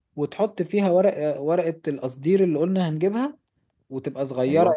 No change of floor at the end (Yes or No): Yes